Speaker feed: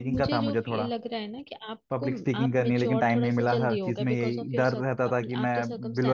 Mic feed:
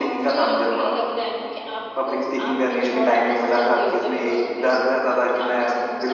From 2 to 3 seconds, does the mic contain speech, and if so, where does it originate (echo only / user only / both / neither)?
echo only